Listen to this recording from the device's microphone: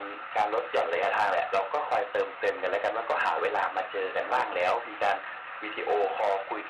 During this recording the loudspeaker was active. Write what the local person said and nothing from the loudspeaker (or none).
ครับ